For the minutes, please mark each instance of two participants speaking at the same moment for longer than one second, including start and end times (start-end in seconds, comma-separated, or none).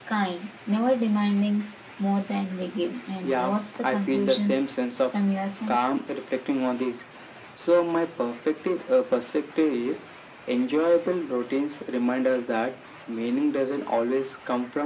3.2-4.6